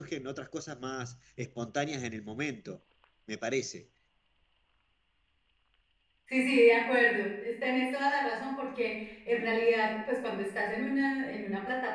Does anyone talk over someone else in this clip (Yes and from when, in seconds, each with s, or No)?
No